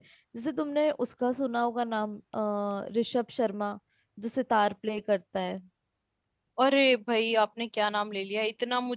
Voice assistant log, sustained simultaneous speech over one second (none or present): none